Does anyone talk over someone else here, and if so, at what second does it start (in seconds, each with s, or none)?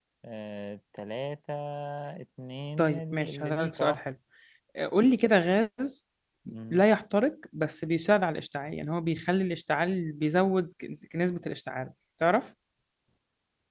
2.8 s